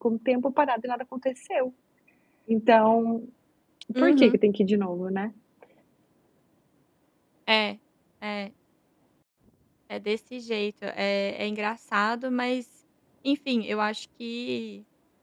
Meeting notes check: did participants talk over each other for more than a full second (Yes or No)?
No